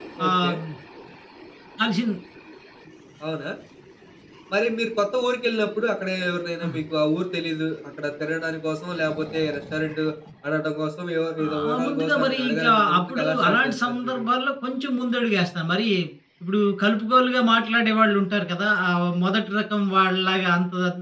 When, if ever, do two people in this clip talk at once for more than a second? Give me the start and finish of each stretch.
11.4-14.2

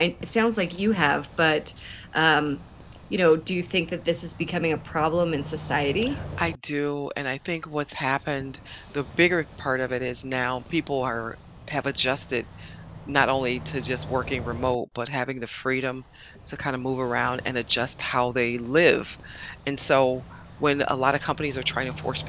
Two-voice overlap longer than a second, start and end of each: none

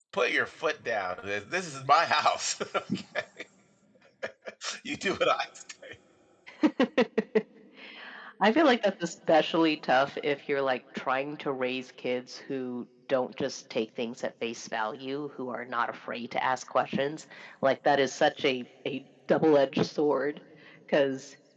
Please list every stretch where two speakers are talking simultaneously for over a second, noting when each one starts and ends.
none

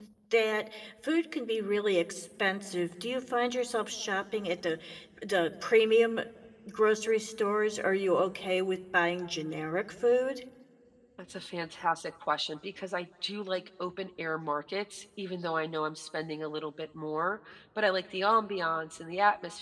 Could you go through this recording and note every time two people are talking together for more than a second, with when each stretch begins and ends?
none

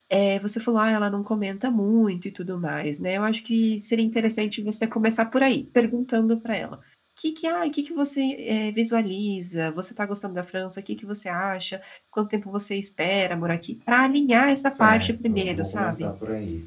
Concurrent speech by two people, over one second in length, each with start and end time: 14.8-16.1

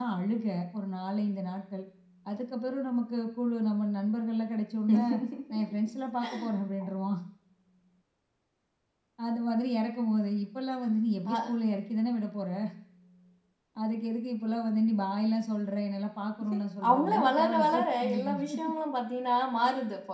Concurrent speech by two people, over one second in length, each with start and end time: 16.9-18.7

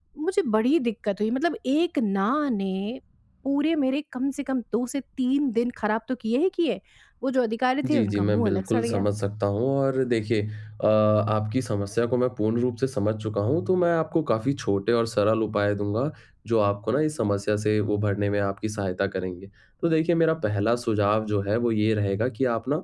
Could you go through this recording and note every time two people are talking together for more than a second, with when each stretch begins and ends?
7.8-9.1

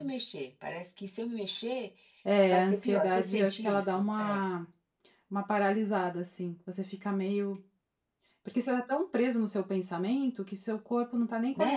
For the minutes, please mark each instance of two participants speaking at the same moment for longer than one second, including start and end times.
2.5-4.4

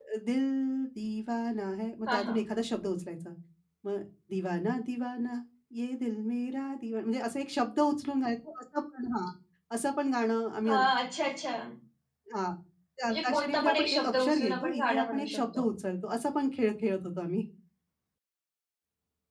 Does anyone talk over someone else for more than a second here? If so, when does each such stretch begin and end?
13.1-15.7

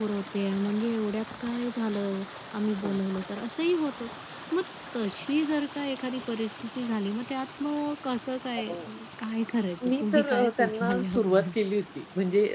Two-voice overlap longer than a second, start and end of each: 9.9-11.5

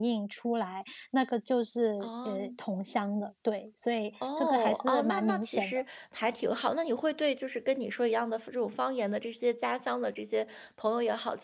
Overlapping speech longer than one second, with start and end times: 4.4-5.8

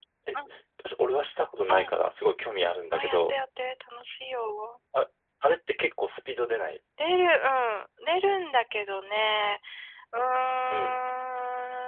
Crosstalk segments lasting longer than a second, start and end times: none

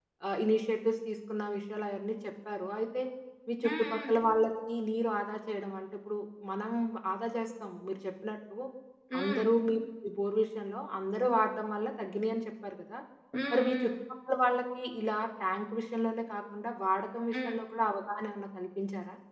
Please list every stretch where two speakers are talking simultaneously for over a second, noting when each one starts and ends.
none

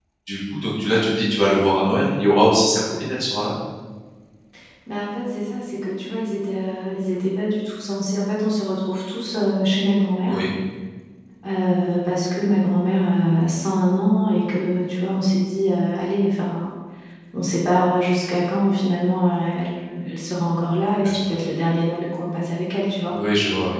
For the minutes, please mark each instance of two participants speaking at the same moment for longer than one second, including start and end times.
none

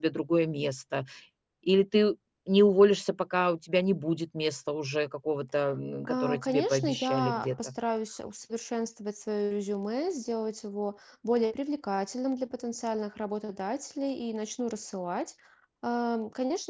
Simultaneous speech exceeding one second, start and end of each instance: 6.1-7.7

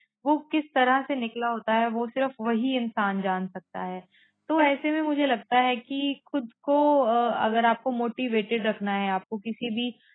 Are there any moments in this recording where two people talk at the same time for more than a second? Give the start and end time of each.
none

